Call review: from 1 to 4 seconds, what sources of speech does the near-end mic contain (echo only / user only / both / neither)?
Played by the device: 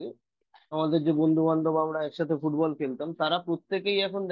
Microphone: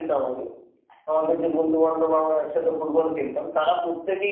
echo only